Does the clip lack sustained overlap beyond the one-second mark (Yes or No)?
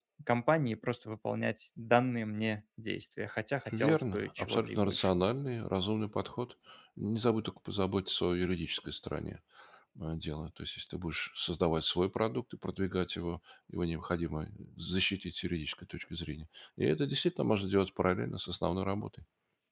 No